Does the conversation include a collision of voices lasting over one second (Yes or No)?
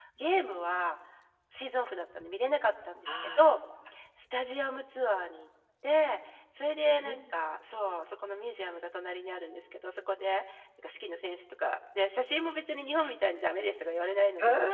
No